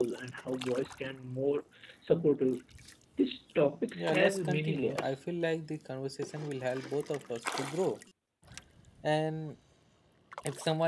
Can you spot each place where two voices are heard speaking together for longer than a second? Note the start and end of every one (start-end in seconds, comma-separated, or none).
3.9-5.2